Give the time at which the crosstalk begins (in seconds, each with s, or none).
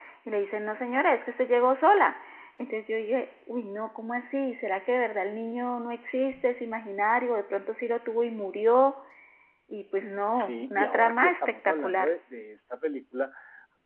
10.3 s